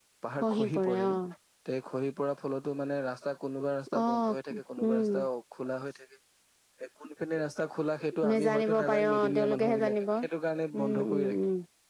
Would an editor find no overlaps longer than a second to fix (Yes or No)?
No